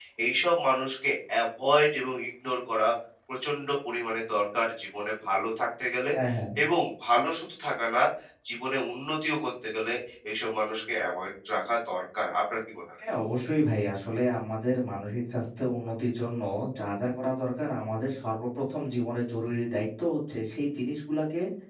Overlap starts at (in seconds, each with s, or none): none